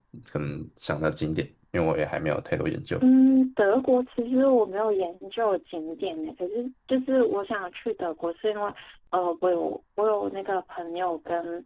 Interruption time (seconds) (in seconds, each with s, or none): none